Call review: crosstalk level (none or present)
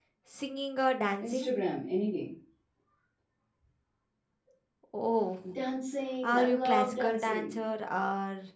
present